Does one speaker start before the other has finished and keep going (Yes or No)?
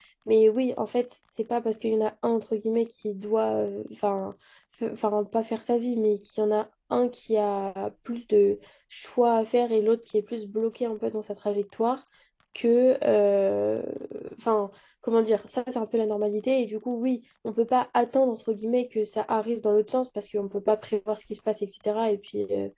No